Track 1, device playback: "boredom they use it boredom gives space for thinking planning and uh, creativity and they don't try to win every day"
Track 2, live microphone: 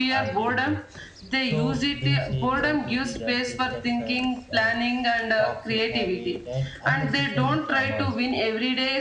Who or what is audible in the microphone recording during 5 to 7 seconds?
both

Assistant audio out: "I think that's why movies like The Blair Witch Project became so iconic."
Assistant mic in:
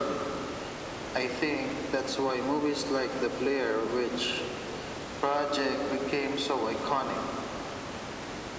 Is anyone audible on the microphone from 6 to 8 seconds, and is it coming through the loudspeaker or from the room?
echo only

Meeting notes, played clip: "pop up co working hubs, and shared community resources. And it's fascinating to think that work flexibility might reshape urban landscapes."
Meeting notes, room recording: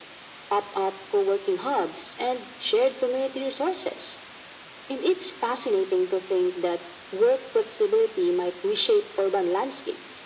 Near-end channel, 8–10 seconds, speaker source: echo only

